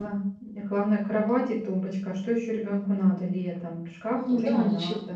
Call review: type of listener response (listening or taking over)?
taking over